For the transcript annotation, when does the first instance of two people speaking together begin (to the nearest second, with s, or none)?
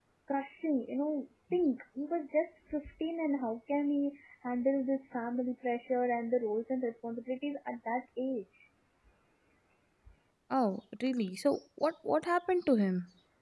none